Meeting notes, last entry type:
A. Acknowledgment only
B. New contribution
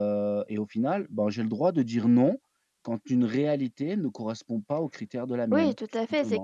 B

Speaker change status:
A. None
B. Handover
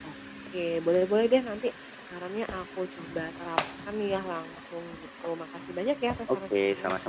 B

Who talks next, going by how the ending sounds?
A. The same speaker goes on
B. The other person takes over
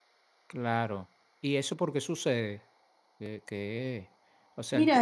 B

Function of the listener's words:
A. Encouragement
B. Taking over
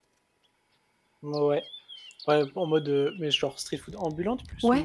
B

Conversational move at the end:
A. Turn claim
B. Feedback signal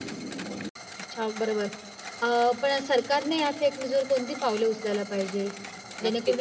A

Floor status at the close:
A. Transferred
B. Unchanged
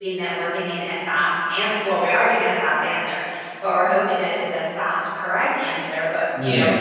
B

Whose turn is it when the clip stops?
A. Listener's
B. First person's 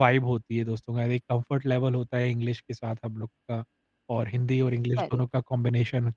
B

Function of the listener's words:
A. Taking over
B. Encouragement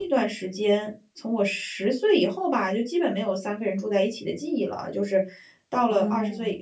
B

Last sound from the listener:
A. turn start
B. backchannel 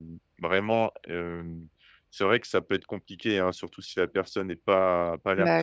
B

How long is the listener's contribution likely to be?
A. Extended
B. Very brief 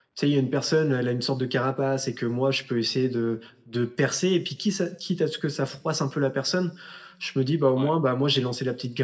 B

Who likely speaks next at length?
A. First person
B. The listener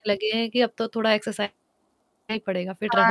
B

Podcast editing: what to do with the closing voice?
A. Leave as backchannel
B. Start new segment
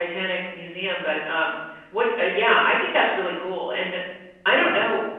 A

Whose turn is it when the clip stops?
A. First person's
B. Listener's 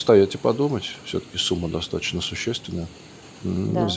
A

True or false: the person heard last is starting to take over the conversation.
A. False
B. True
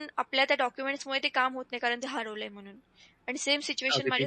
A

